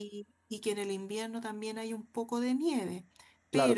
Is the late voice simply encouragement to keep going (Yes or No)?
No